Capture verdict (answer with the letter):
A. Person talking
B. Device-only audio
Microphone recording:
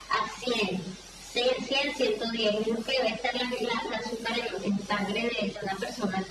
B